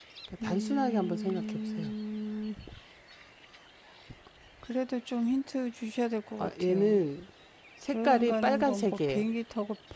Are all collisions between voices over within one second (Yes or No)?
No